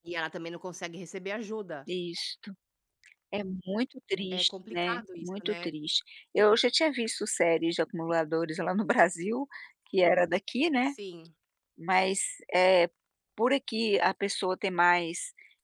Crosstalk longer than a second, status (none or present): present